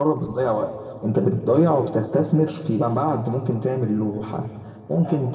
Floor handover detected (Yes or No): No